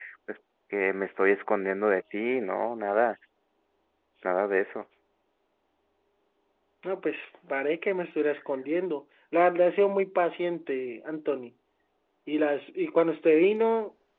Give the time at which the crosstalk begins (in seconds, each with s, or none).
none